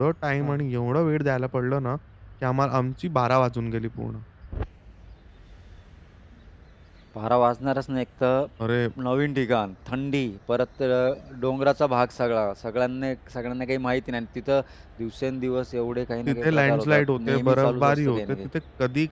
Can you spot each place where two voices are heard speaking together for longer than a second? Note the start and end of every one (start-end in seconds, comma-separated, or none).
16.3-18.5